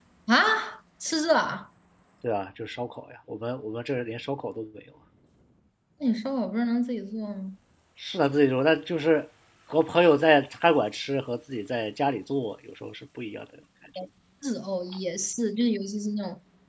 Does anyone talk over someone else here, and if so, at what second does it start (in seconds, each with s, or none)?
none